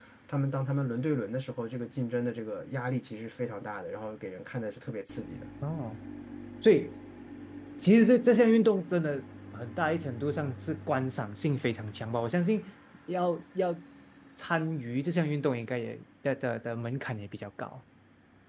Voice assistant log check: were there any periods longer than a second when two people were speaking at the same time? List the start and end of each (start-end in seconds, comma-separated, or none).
none